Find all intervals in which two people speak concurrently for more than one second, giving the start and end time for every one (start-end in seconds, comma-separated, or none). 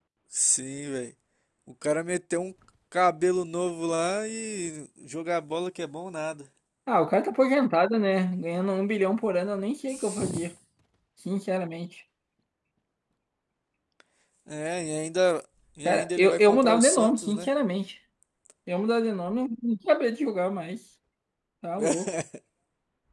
15.8-17.5